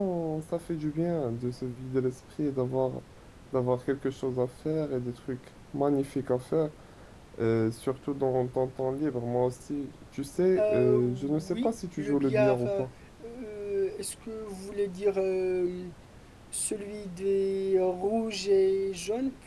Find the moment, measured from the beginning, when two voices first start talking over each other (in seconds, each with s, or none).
10.6 s